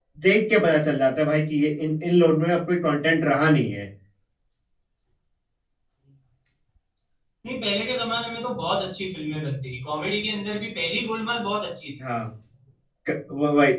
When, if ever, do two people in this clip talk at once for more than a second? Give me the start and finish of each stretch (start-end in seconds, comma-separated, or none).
none